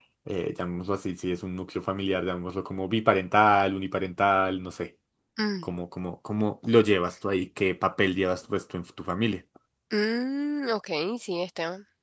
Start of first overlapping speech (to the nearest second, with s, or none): none